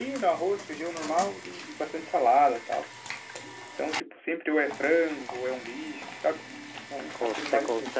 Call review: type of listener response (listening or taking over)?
taking over